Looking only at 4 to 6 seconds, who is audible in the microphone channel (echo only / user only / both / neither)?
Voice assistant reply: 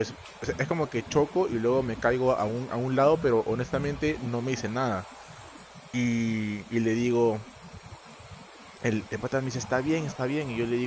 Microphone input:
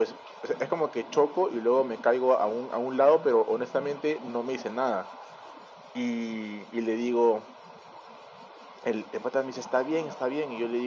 echo only